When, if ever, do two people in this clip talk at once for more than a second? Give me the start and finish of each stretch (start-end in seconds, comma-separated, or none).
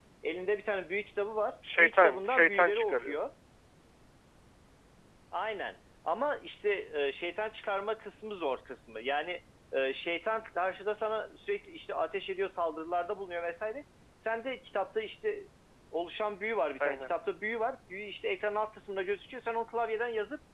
1.8-3.2